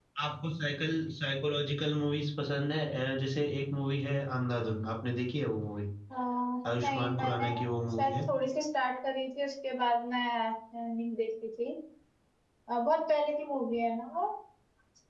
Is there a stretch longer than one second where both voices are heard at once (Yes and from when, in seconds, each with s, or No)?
Yes, from 6.8 s